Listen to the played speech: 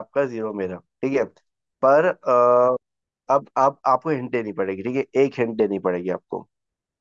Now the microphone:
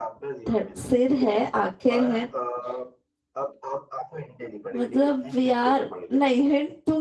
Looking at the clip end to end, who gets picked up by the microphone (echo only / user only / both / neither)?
both